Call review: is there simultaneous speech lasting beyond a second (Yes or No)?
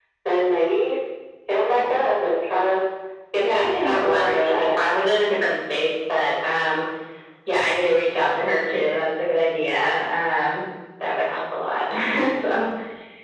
Yes